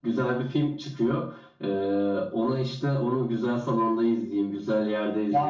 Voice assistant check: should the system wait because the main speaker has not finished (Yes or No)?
No